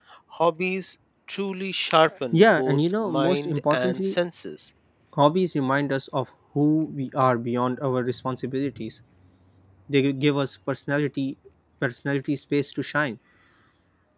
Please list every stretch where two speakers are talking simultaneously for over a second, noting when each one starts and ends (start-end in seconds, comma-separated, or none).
2.3-4.2